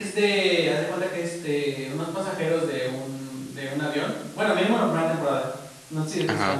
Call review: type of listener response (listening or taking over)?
listening